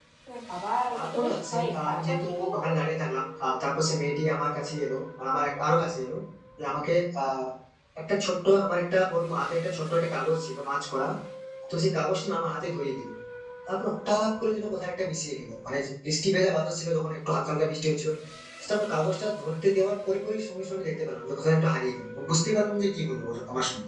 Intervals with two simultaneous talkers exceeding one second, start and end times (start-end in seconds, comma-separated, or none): 0.9-2.7